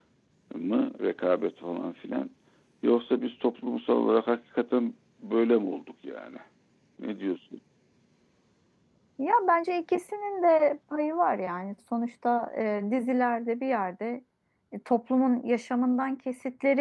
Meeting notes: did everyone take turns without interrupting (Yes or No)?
Yes